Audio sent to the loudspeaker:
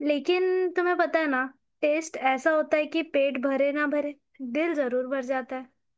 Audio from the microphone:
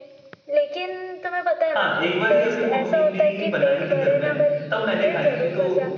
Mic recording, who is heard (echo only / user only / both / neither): both